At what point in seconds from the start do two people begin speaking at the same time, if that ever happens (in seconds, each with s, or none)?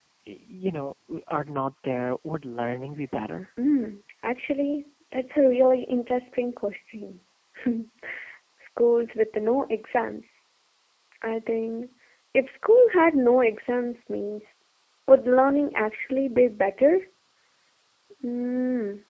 none